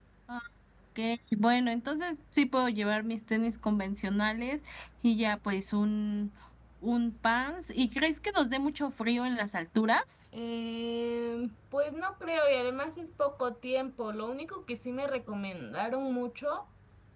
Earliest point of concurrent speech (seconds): none

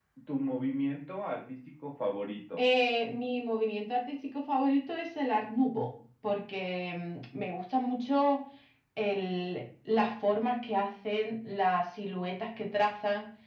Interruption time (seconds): none

